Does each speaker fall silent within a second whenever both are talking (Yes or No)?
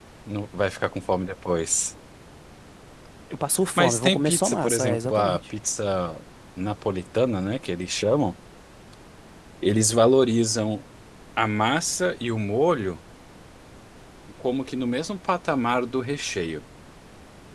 No